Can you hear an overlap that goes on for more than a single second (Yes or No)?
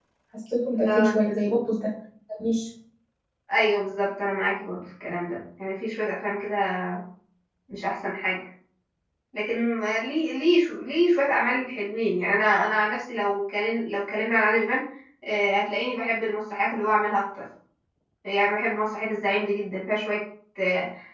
No